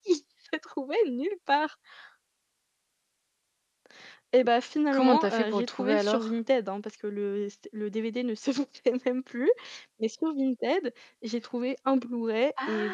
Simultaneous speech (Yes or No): Yes